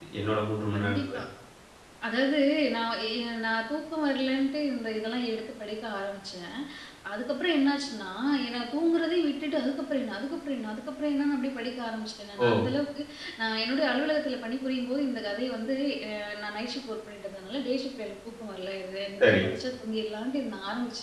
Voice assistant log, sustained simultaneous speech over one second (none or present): none